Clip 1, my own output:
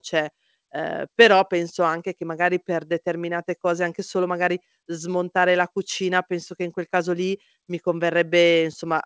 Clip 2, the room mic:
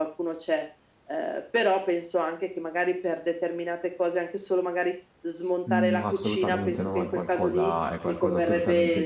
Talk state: both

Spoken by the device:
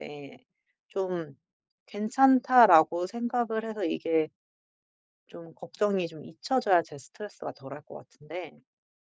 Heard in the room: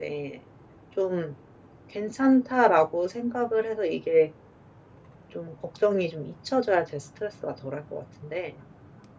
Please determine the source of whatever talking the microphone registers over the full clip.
echo only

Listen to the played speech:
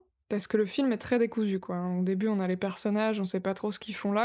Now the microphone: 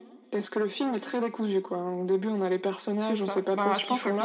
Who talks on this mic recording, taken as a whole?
both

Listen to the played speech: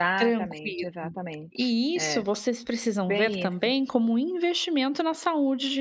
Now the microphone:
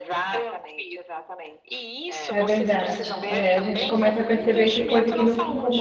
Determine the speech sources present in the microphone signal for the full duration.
both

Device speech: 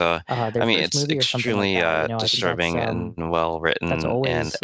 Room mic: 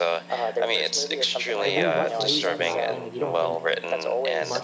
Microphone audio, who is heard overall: both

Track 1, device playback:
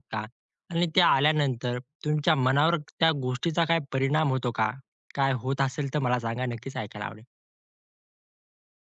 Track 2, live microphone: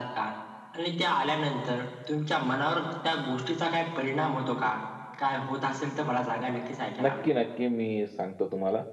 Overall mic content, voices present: both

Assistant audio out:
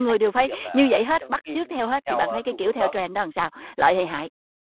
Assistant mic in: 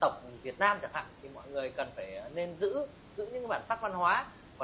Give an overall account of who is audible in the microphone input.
user only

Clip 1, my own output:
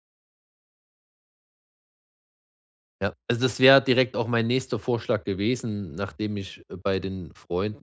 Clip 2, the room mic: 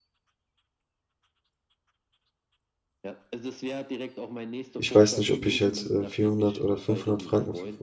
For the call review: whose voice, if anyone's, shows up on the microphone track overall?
both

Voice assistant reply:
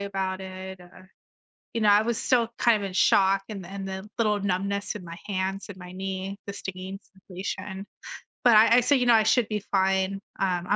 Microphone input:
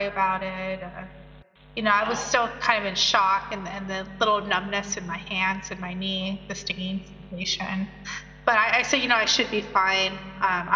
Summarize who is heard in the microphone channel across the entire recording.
both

